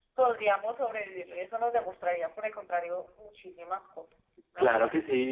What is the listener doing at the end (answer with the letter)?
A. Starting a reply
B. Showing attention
A